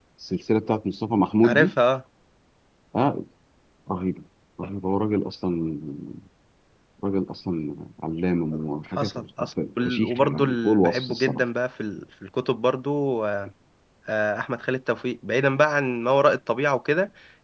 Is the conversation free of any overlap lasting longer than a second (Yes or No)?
No